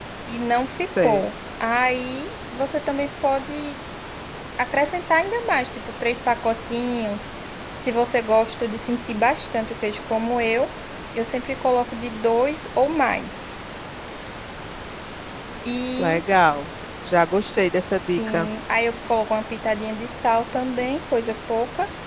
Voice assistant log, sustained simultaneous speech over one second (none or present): none